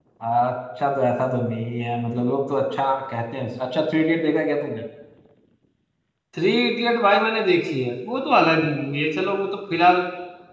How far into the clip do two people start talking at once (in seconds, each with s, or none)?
none